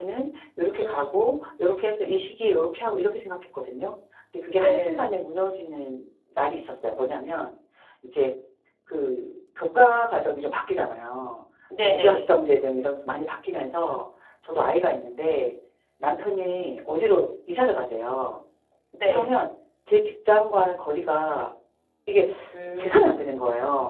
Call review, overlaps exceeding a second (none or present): none